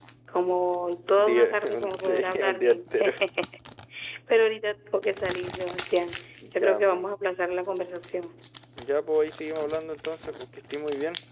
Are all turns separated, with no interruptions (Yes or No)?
No